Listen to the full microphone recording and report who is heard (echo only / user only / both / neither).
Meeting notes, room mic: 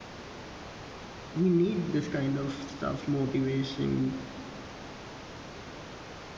user only